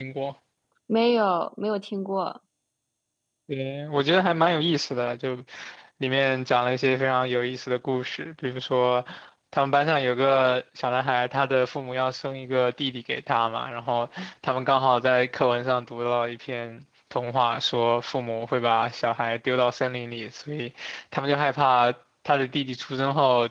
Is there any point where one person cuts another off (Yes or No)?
No